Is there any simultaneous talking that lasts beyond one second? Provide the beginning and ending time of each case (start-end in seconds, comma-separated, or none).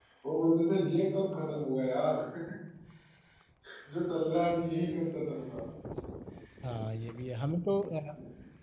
none